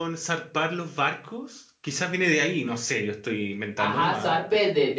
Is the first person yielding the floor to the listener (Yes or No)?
Yes